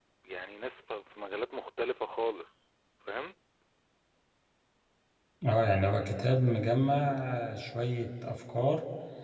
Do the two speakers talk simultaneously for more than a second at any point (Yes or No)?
No